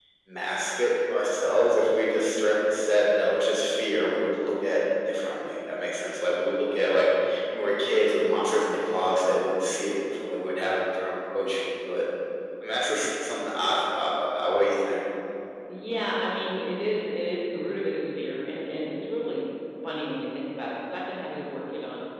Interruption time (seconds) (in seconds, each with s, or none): none